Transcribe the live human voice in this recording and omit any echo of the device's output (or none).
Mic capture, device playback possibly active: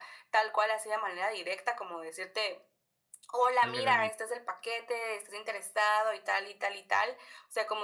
Echarle ganitas.